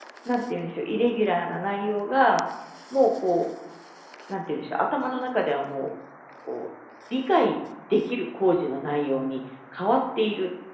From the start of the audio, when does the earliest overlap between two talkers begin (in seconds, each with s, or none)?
none